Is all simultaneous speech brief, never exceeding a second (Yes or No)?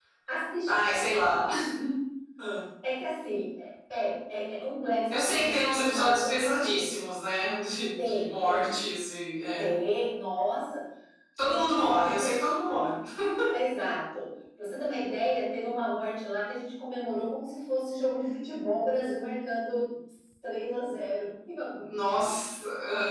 No